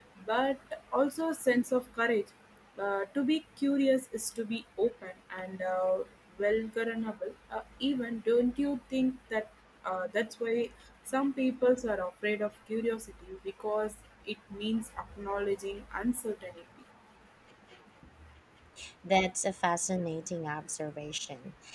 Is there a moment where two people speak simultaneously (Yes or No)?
No